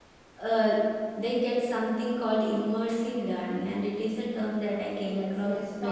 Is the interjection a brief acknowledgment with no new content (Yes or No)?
No